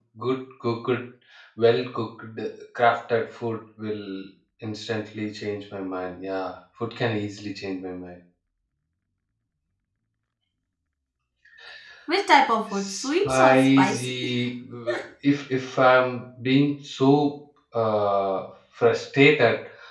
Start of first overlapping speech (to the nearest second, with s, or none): 13 s